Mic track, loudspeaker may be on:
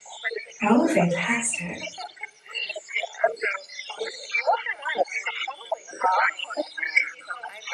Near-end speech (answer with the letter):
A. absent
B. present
B